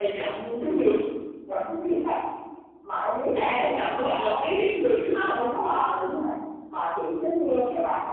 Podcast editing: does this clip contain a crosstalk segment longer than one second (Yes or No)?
Yes